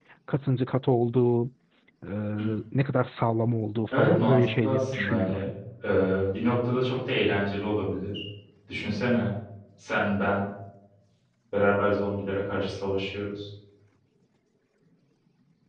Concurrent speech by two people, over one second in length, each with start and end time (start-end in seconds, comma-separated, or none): 3.9-5.3